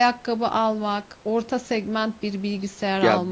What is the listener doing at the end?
taking over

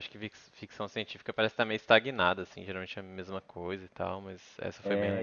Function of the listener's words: taking over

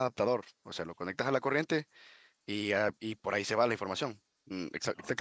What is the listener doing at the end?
listening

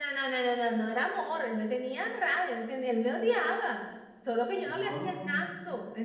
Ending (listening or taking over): listening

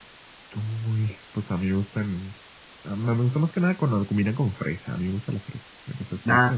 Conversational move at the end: taking over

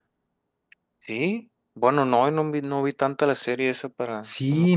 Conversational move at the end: taking over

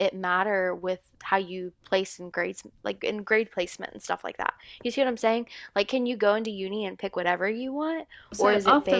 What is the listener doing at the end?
taking over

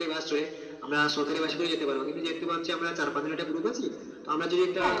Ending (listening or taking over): listening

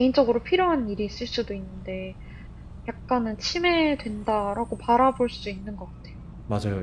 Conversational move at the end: taking over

